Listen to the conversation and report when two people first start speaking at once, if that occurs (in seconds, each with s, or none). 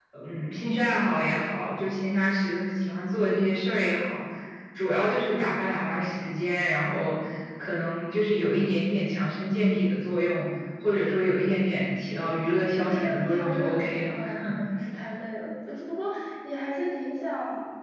11.7 s